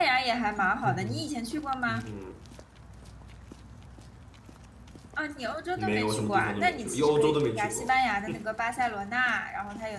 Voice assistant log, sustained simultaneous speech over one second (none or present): present